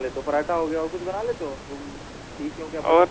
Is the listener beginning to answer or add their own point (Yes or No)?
Yes